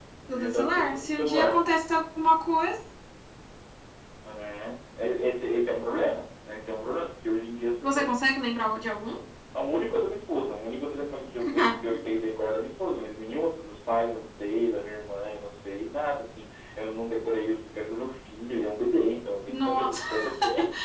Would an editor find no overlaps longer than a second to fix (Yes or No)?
No